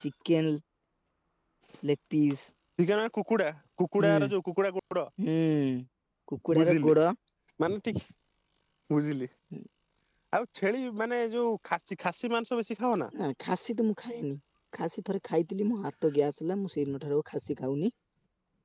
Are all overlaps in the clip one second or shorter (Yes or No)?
Yes